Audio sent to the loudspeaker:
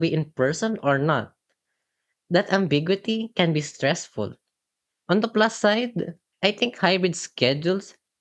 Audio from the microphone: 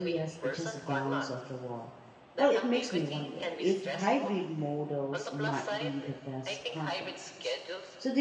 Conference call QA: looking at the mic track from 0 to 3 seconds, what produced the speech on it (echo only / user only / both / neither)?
both